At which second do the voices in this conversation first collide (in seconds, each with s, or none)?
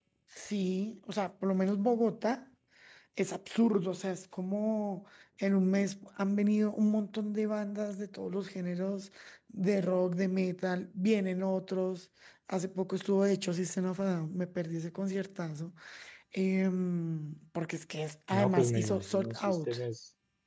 18.3 s